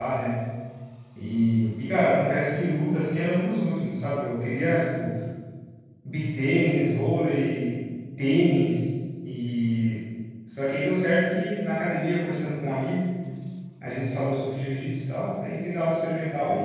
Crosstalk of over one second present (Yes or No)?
No